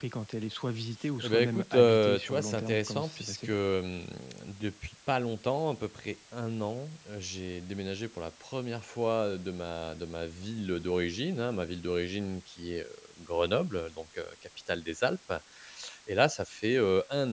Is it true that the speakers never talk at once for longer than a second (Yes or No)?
No